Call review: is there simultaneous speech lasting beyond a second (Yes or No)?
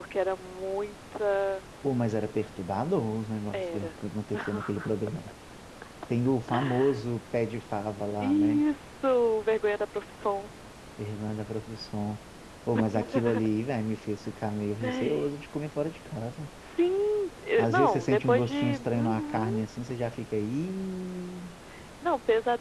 Yes